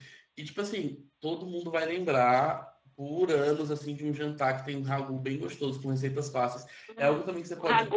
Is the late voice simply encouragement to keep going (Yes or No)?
No